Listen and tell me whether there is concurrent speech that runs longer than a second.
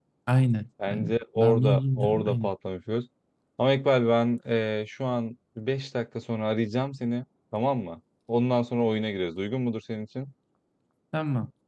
Yes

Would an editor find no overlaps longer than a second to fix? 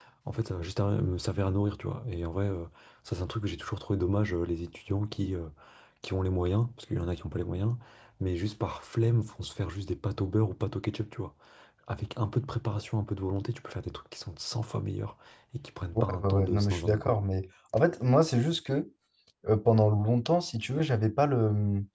No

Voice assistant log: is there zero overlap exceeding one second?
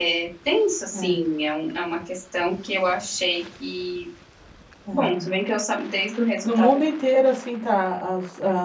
Yes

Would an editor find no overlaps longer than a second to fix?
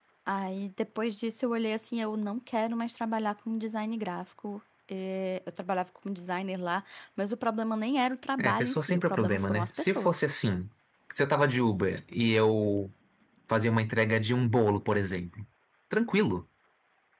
No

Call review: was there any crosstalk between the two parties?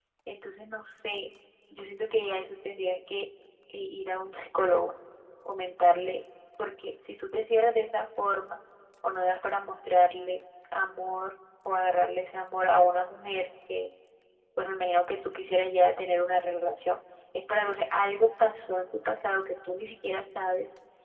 No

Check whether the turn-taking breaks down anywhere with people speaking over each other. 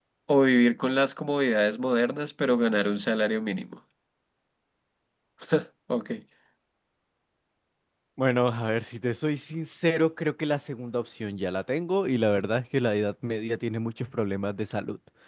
No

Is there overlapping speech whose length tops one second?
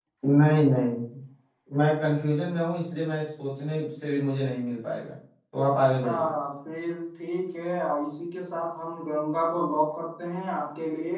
No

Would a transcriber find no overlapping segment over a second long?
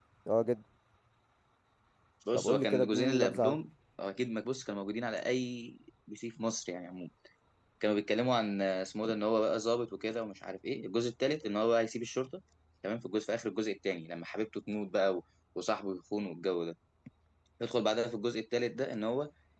No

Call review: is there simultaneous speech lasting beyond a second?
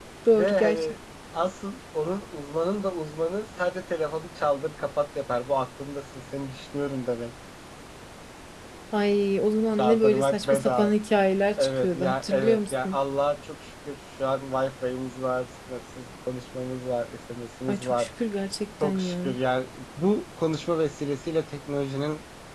Yes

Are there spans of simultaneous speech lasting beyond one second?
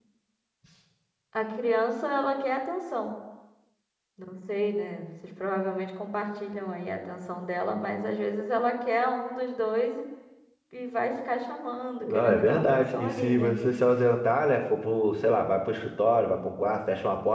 Yes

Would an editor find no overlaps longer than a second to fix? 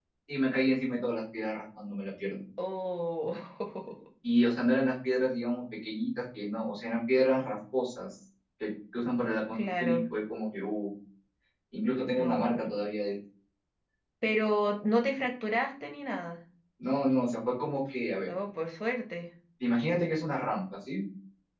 Yes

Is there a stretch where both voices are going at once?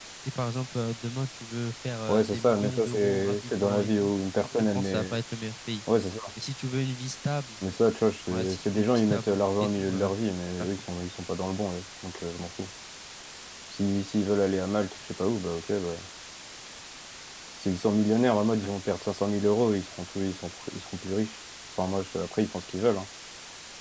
Yes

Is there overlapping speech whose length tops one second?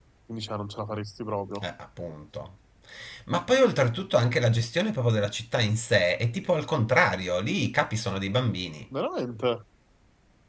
No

